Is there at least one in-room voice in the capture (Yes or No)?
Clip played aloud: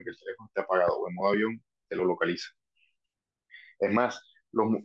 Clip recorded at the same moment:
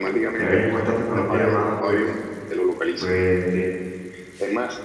Yes